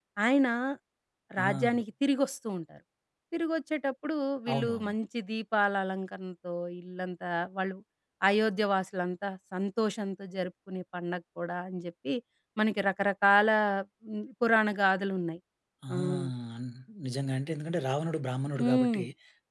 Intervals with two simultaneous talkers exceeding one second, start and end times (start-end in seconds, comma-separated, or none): none